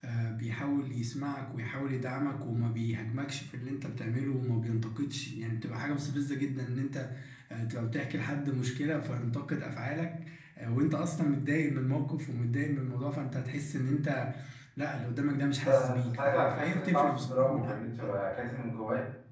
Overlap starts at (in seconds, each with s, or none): 15.6 s